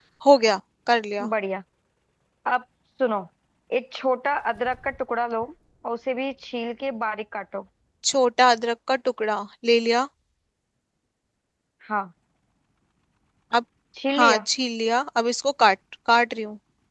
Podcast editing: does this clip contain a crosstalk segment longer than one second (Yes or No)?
No